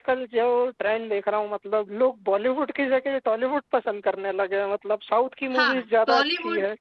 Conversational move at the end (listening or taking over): taking over